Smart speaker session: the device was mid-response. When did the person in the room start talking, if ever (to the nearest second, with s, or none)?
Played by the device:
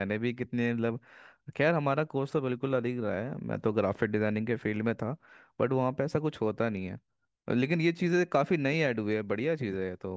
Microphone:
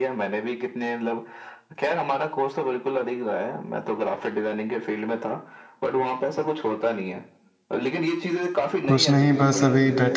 9 s